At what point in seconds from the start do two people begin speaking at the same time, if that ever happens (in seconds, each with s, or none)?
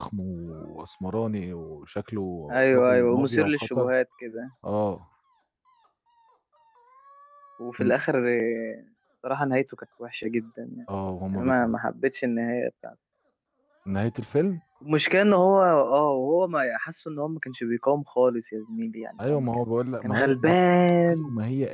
2.5 s